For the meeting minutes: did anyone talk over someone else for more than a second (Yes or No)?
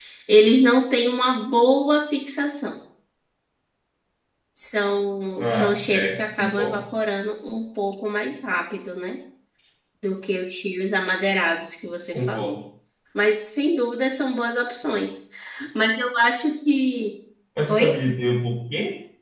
Yes